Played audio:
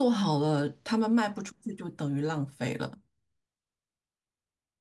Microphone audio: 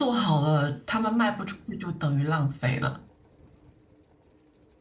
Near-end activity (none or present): none